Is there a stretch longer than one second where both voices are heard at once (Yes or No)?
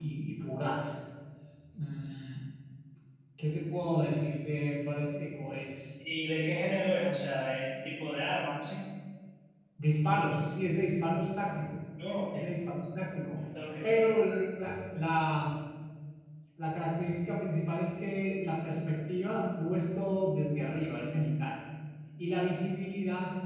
No